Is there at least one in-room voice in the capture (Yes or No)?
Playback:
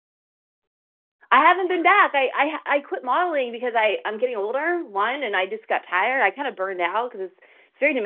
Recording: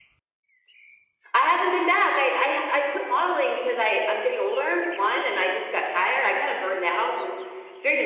No